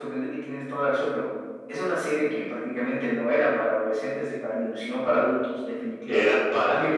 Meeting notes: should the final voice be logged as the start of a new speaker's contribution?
Yes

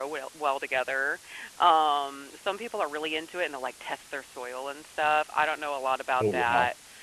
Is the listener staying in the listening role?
Yes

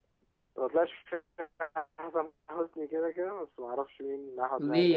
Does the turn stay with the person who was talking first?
No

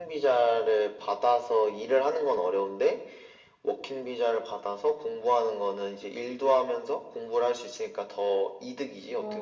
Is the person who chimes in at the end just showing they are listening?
No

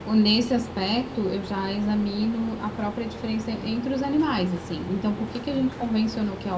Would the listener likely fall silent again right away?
Yes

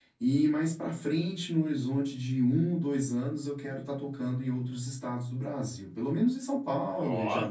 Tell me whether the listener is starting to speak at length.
No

